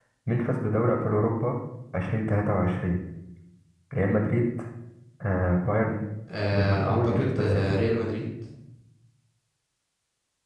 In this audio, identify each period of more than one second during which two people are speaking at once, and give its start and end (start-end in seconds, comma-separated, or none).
6.5-7.7